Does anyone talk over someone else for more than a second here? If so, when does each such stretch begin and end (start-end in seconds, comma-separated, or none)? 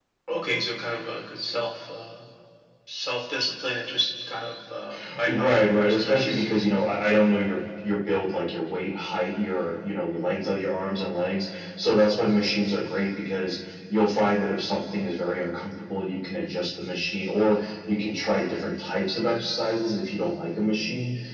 5.2-6.5